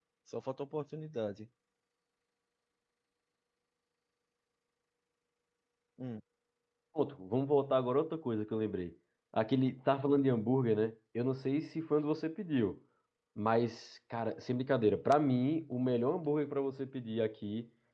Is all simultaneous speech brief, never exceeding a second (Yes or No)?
Yes